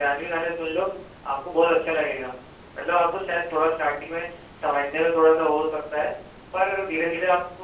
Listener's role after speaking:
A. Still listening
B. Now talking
A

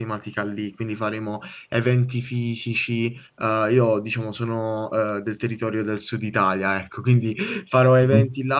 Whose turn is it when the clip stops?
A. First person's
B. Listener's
A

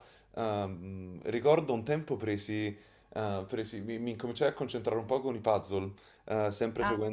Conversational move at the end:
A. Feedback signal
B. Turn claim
A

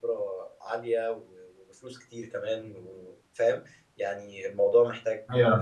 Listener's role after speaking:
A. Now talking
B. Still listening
A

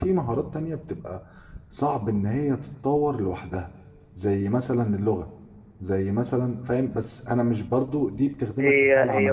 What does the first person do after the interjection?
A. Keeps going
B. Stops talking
B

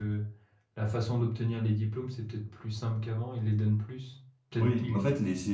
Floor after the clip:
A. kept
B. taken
B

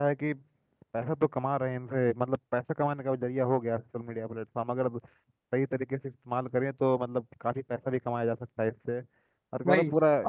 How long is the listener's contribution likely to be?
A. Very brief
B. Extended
A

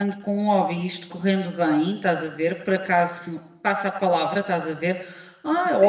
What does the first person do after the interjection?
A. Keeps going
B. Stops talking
A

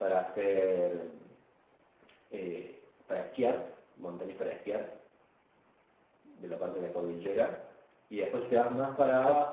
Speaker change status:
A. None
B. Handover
A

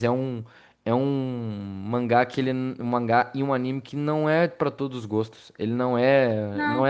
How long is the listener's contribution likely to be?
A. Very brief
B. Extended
B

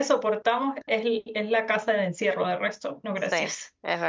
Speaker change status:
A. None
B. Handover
B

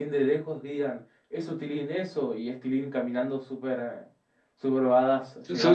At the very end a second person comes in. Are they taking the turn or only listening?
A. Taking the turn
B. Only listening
A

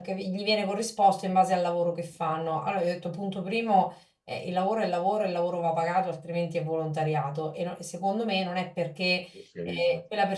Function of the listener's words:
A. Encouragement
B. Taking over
A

